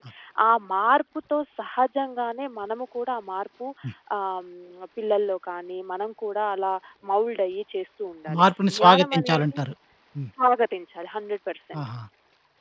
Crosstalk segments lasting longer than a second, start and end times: 8.3-9.6

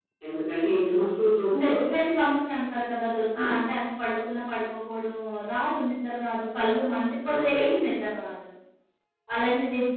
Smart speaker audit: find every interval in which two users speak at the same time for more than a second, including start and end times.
none

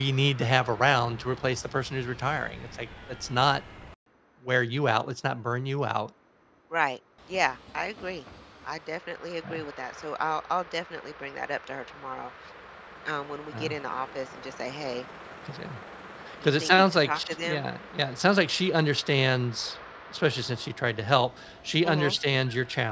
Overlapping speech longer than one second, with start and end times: 16.4-17.6

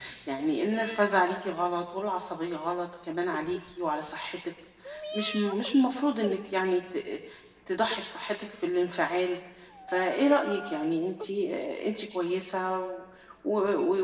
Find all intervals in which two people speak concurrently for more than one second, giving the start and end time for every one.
none

